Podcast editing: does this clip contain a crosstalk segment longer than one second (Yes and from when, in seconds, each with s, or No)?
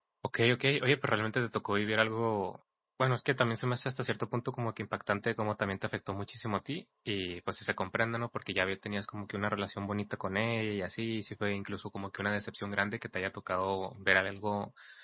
No